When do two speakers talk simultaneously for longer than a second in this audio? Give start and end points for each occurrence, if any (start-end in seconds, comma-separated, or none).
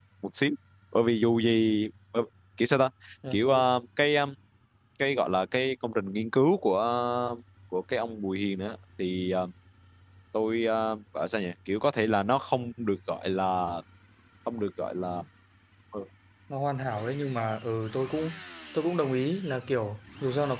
none